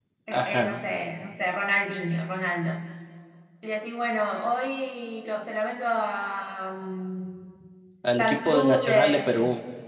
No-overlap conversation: No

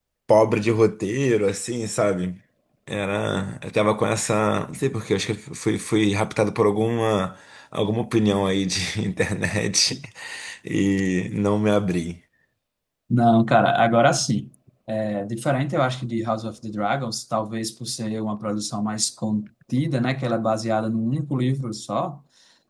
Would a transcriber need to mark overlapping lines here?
No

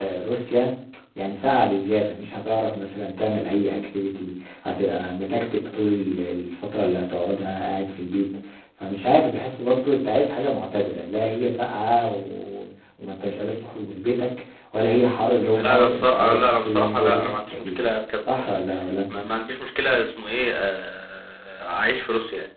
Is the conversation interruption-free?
No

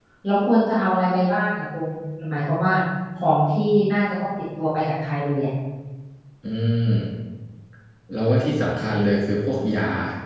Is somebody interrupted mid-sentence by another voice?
No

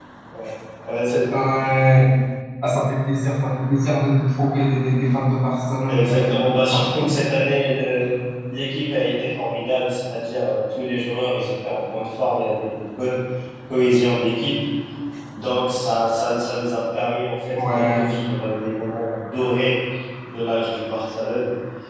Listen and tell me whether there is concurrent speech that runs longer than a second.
No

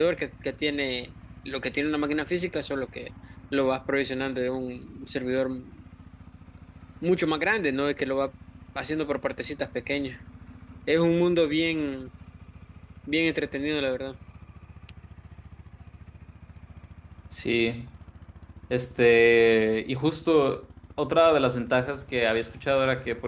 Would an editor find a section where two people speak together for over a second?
No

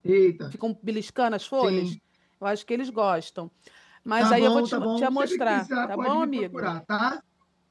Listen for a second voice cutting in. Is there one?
Yes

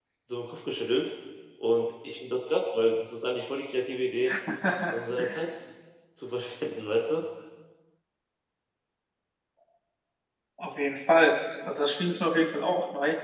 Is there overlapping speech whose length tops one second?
No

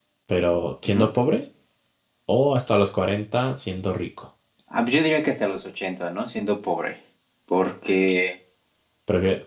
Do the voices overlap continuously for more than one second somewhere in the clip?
No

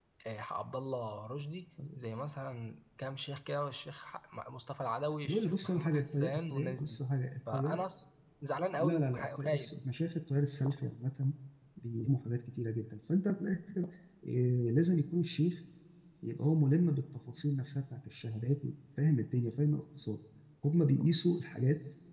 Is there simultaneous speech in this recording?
Yes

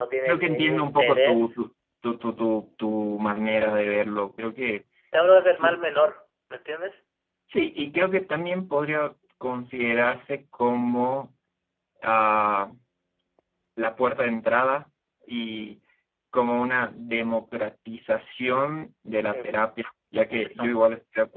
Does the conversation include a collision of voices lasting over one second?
Yes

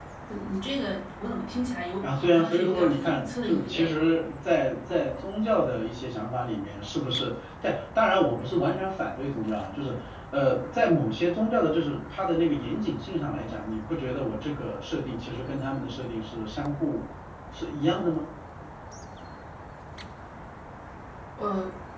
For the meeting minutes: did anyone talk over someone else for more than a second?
Yes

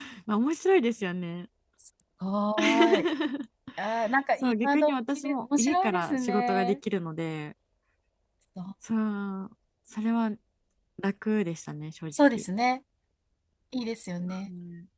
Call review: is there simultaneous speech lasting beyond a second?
Yes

